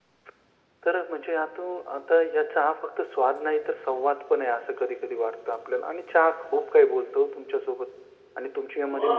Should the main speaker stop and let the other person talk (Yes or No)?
No